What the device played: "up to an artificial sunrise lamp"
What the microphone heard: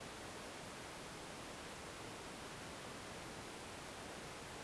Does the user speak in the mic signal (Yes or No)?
No